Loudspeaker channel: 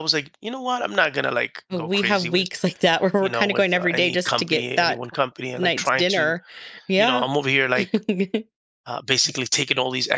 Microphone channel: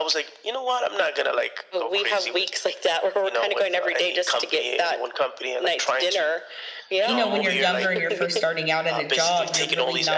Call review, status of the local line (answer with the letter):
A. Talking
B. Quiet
A